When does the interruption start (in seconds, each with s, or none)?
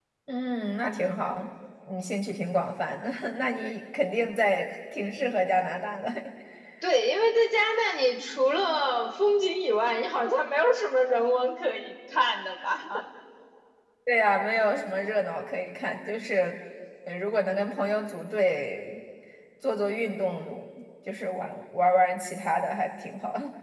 none